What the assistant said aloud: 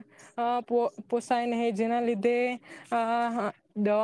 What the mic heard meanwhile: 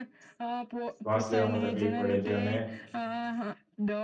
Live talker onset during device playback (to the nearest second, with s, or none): 1 s